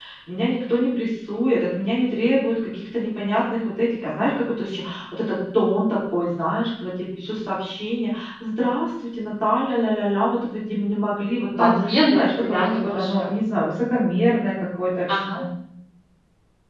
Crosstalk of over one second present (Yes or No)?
Yes